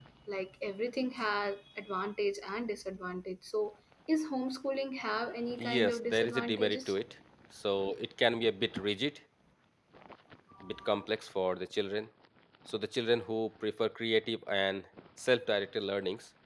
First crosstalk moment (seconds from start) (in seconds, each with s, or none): 5.6 s